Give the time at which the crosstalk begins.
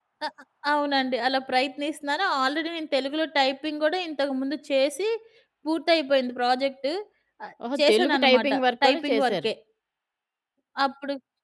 7.8 s

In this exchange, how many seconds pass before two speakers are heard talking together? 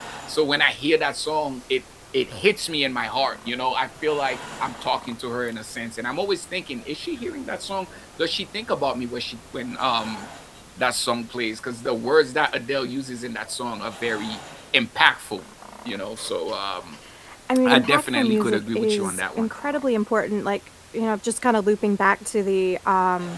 17.7 s

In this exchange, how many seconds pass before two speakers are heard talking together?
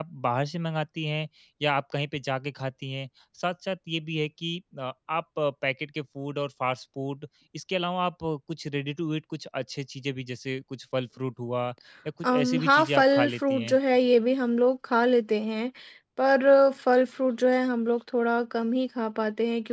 12.2 s

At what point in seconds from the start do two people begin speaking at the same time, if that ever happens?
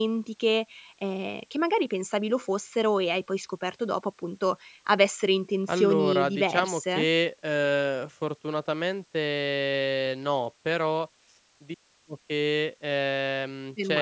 5.7 s

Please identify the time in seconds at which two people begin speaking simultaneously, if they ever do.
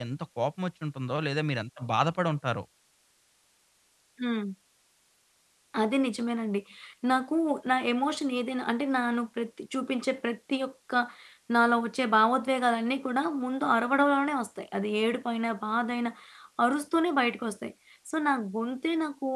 none

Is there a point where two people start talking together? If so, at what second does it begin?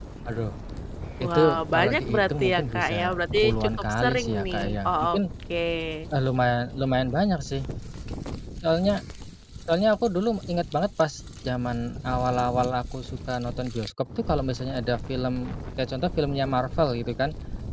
1.2 s

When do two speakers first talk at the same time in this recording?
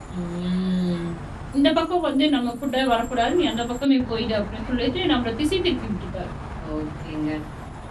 none

